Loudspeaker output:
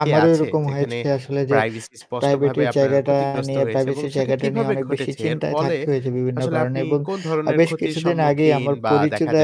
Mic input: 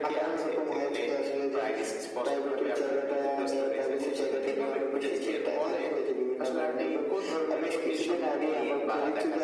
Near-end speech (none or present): none